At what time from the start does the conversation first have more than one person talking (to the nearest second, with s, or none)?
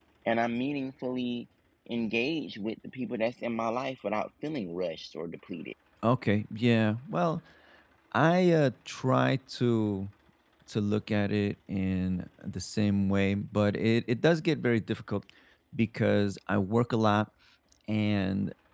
none